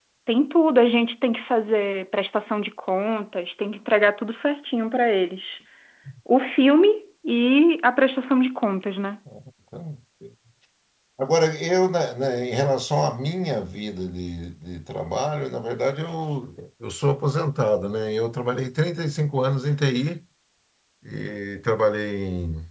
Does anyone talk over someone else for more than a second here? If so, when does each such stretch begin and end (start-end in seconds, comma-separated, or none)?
none